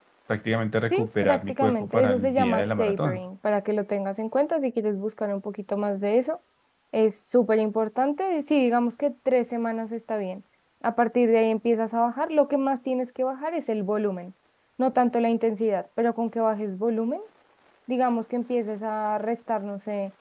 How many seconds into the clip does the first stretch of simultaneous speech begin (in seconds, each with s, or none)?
0.9 s